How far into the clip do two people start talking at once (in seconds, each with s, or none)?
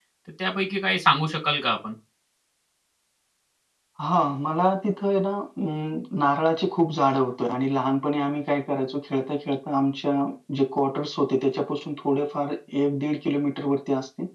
none